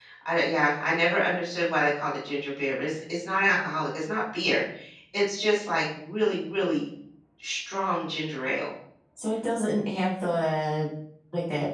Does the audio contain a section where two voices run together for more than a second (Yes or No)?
No